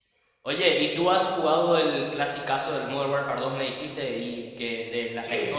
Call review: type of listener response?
listening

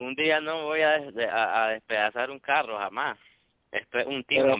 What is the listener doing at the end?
listening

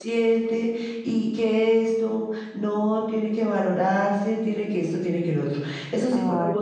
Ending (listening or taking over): listening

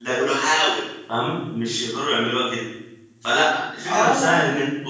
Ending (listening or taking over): listening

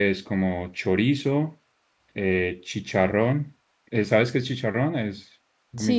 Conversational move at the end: taking over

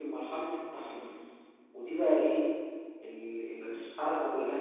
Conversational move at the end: listening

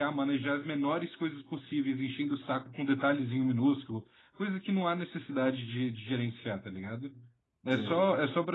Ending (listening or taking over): listening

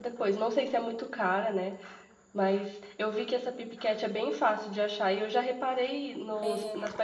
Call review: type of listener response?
listening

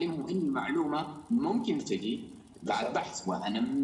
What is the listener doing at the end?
listening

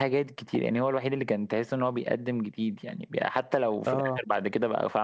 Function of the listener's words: listening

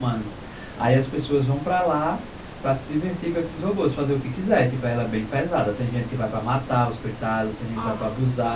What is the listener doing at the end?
listening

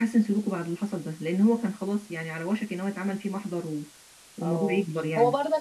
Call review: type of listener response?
taking over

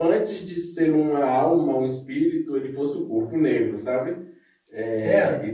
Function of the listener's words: taking over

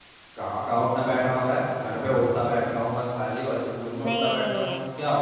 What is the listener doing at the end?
taking over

